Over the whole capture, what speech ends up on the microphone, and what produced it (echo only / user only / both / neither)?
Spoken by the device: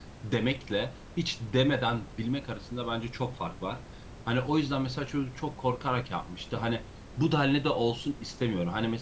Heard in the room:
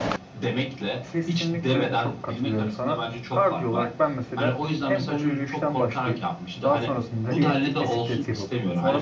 both